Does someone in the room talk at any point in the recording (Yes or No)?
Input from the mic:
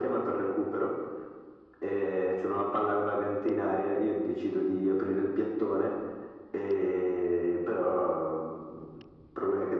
No